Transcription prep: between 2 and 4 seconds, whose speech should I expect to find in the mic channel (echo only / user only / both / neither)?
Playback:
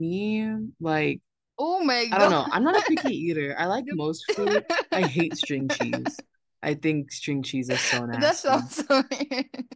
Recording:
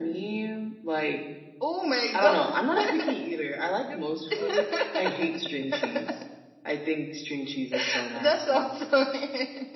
echo only